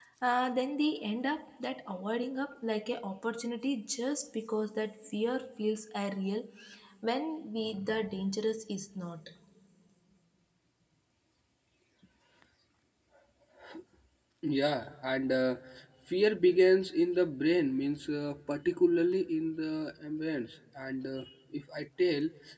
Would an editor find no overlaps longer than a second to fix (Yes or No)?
Yes